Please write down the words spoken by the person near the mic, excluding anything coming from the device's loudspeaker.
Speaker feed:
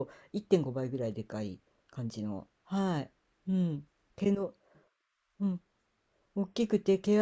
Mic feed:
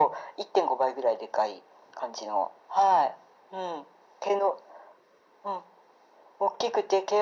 none

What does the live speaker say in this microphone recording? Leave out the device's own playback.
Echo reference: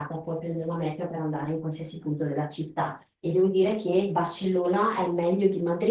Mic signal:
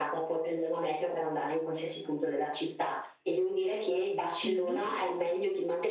Mm,

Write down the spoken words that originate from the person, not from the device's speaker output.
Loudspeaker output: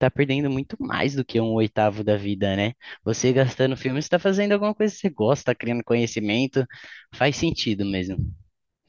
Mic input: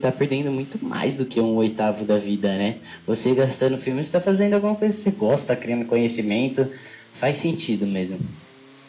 none

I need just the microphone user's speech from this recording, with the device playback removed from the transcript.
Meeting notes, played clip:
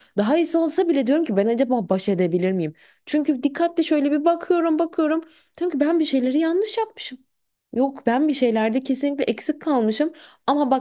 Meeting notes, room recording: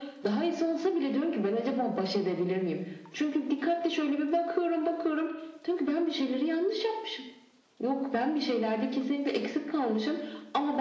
none

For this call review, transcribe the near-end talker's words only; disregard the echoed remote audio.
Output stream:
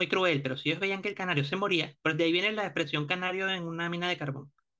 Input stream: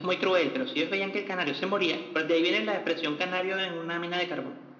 none

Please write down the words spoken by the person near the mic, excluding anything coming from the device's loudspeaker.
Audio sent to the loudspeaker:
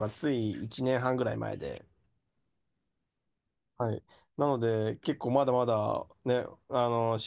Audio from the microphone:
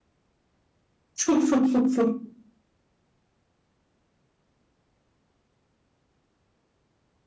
そうそうそうそう。

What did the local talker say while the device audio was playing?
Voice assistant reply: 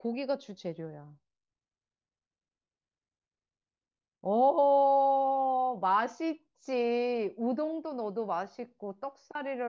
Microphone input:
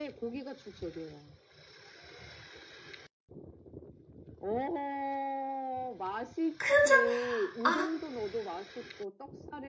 큰 절, 아,

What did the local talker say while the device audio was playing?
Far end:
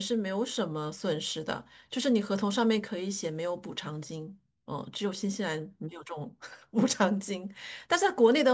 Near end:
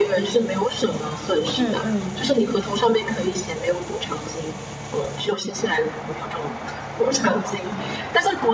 嗯嗯，

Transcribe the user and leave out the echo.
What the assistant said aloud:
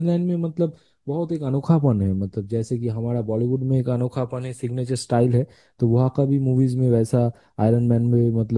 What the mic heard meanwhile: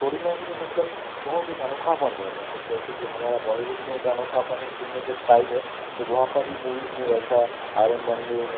none

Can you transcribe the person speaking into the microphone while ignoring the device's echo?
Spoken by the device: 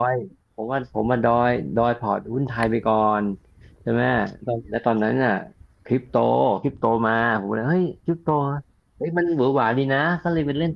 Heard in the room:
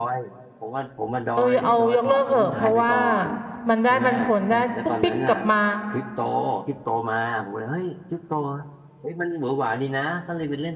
เออเอายกเลิกเถอะเพราะว่ามันได้ปันผลได้ปุ๊บปิ๊กกลับมา

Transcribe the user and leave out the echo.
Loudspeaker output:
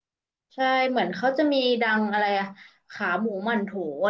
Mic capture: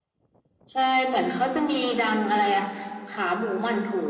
none

